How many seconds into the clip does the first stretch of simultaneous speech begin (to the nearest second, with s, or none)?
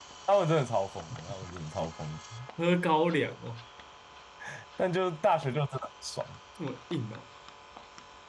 none